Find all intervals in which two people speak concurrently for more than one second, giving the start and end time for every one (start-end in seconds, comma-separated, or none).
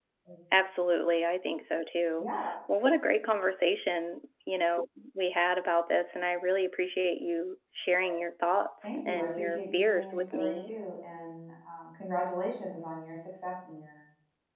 9.0-10.7